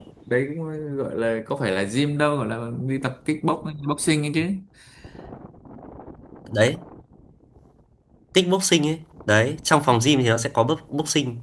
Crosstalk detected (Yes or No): No